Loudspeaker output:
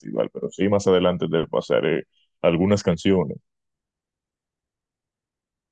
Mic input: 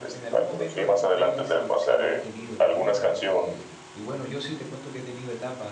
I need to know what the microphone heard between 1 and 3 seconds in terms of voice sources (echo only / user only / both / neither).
both